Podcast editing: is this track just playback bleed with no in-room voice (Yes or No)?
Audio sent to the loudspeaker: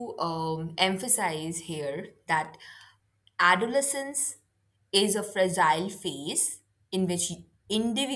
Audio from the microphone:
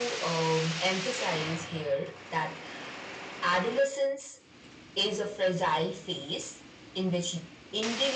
Yes